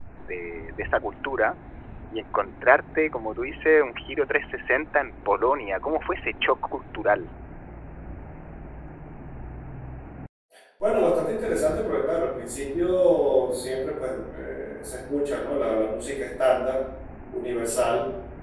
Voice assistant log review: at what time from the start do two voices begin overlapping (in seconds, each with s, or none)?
none